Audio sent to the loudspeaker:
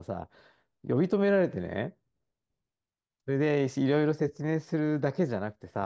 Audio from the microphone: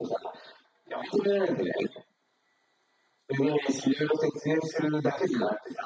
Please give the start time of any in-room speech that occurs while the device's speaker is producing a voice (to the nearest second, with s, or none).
none